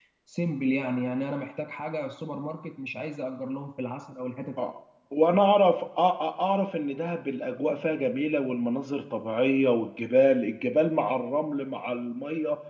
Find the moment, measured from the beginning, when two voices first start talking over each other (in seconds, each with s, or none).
none